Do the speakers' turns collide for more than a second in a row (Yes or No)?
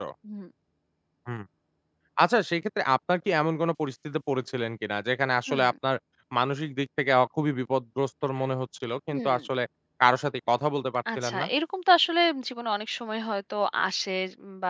No